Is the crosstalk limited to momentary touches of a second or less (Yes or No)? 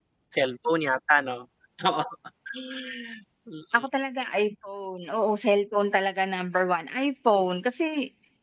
Yes